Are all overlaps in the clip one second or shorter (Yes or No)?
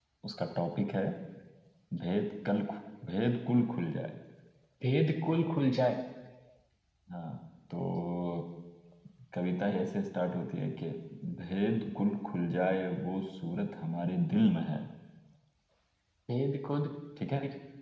Yes